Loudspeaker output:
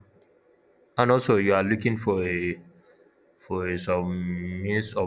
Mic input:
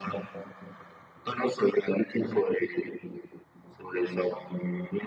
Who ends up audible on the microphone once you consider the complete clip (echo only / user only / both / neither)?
echo only